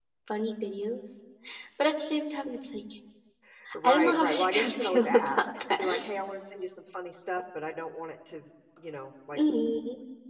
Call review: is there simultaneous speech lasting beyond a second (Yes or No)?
Yes